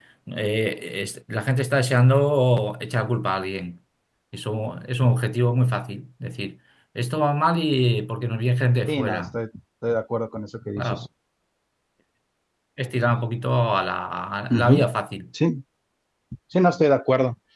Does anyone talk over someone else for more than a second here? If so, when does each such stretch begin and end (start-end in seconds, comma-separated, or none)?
none